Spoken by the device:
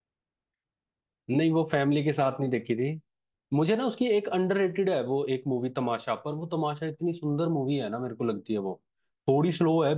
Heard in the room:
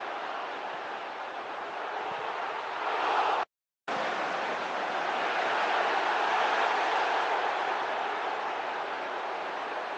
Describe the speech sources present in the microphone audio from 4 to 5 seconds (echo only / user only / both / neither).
neither